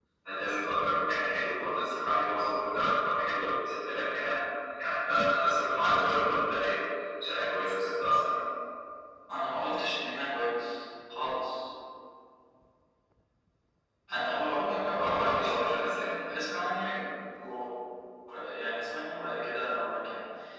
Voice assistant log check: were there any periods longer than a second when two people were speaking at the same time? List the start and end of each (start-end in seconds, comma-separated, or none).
14.9-16.9